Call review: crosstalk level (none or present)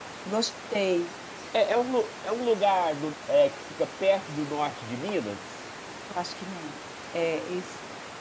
none